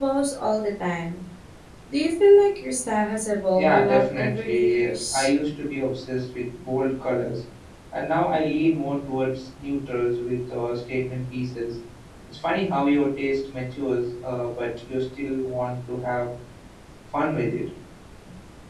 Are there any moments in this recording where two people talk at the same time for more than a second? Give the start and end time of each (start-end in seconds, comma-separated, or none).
3.6-5.3